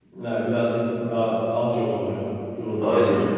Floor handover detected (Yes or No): Yes